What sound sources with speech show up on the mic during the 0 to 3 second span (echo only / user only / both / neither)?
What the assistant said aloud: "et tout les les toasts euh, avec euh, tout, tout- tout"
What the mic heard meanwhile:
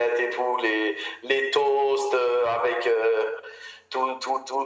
echo only